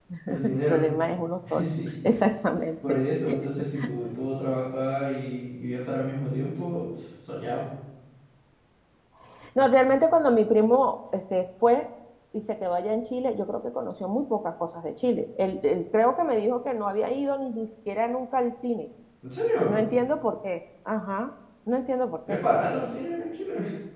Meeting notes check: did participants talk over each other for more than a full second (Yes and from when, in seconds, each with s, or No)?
No